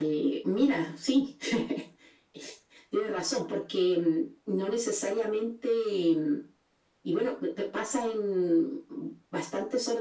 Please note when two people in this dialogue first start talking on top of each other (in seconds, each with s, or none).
none